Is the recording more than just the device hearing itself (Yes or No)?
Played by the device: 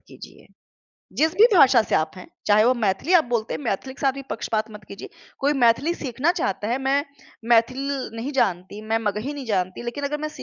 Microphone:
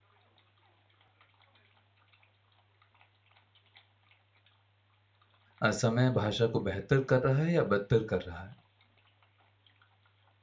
Yes